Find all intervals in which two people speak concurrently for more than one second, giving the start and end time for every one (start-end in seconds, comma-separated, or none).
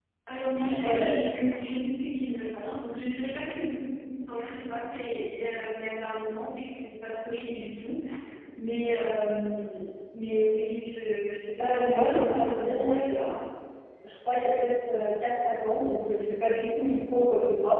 11.6-13.2